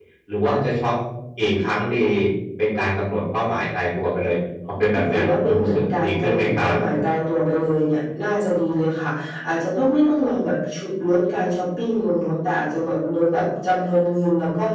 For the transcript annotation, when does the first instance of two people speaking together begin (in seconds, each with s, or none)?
5.0 s